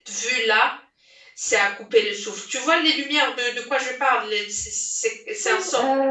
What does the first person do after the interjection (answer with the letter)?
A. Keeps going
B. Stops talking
B